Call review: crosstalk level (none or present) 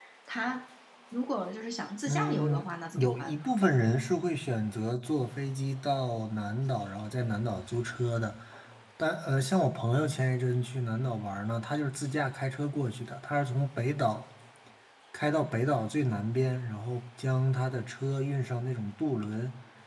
present